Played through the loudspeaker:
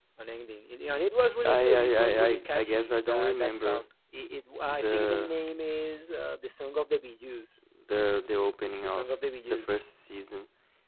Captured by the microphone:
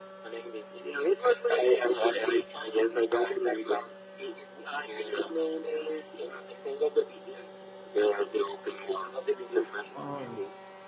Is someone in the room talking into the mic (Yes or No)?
Yes